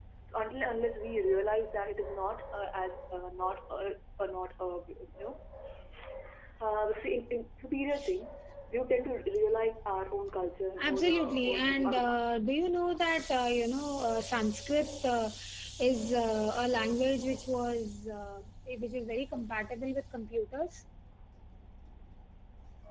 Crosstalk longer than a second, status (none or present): present